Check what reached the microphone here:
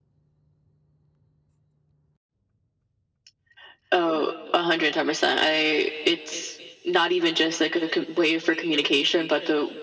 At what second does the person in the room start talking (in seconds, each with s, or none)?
none